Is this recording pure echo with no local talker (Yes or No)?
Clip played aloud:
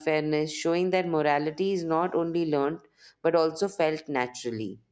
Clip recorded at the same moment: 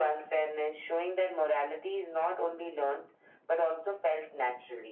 Yes